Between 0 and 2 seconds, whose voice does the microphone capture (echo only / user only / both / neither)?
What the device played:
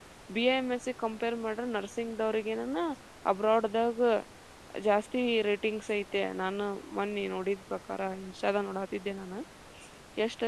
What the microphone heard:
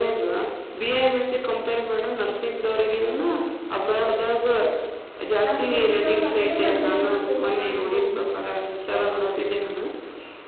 echo only